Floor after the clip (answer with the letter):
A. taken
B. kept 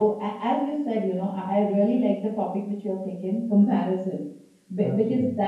B